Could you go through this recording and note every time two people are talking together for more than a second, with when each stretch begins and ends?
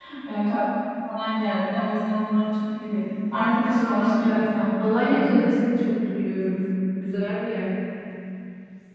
3.4-5.6

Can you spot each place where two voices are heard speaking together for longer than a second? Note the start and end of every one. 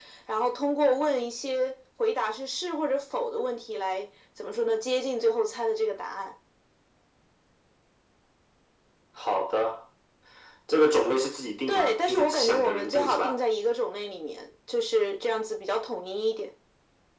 11.7-13.3

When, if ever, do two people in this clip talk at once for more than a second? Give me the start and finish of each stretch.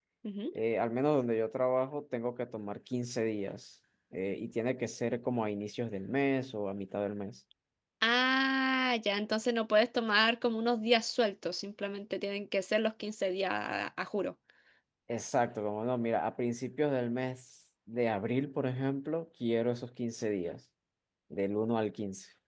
none

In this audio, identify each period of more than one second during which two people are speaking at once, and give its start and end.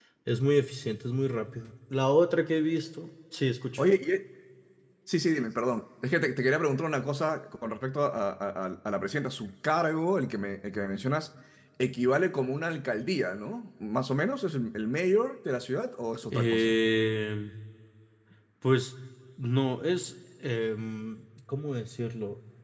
none

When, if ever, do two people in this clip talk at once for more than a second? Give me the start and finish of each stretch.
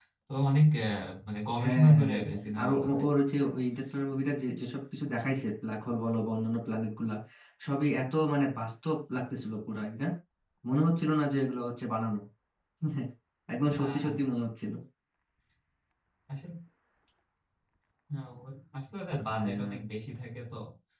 1.6-3.0

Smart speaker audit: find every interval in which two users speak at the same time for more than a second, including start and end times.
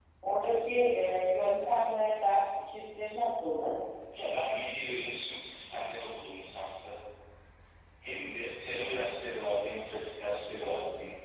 none

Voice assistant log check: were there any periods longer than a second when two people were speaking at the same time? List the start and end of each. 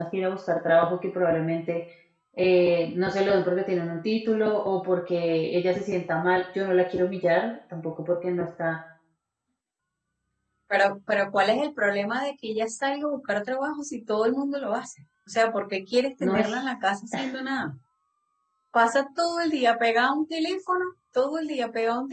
none

